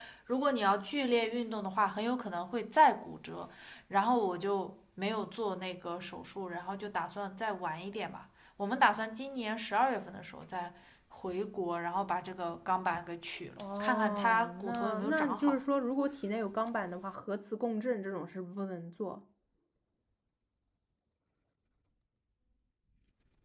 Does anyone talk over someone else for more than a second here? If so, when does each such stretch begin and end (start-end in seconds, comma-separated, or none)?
13.6-15.6